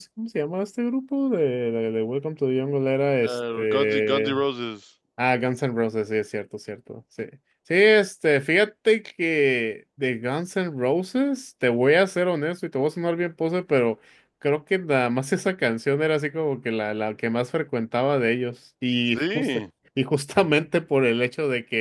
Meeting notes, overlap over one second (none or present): present